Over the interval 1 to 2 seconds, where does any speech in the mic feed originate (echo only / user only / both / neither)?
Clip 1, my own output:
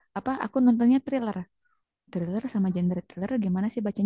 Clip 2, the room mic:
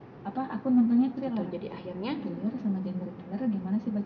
both